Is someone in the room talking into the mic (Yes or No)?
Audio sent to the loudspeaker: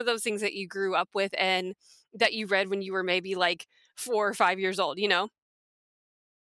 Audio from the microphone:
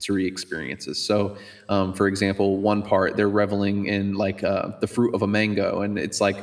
Yes